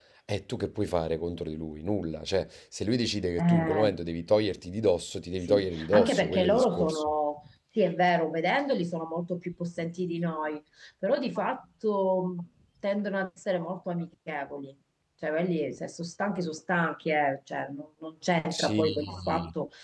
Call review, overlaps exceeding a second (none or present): present